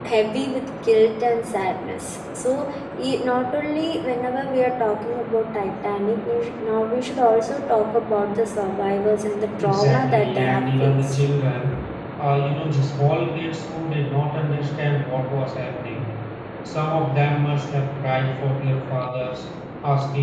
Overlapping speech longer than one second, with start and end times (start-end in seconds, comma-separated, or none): 9.6-11.2